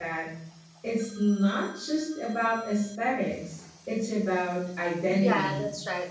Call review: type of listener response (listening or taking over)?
taking over